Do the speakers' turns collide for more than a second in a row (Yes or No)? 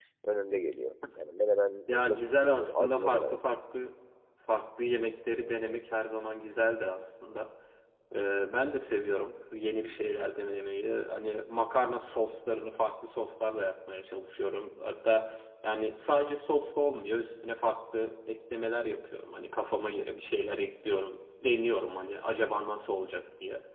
Yes